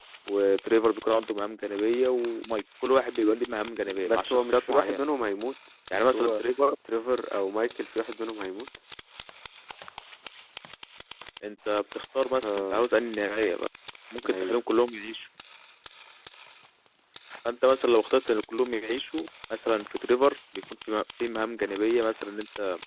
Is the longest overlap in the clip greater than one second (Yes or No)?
Yes